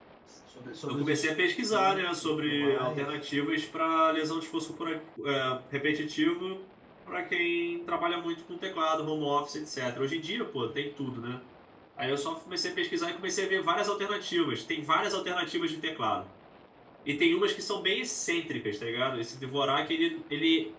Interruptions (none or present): present